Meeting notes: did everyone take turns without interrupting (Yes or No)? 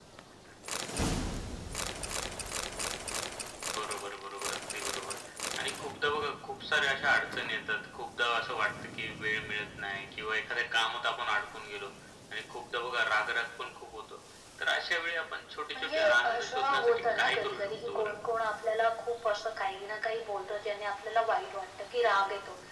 No